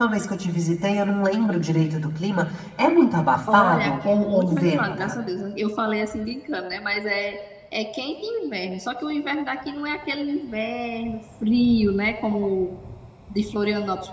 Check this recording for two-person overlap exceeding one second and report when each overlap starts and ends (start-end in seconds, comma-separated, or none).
3.5-5.2